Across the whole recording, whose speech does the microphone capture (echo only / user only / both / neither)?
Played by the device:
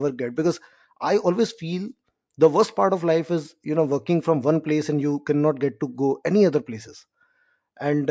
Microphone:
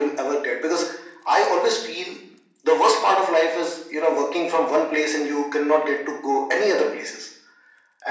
echo only